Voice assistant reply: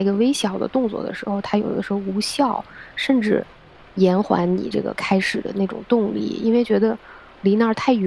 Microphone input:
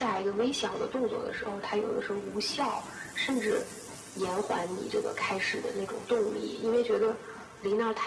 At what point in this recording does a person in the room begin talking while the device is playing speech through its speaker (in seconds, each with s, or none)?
none